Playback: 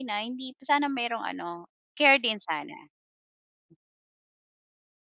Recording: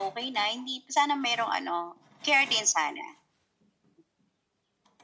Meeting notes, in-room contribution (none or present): none